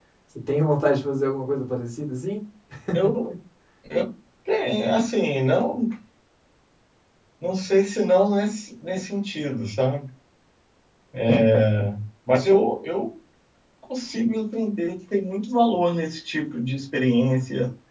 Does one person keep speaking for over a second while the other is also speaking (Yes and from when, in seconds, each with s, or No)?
No